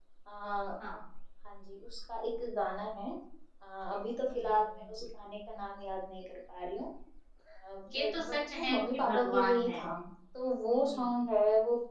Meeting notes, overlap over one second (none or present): present